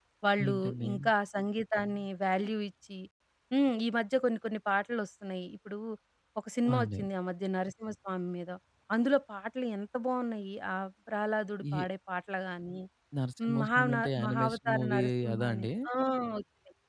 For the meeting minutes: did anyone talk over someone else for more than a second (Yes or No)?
Yes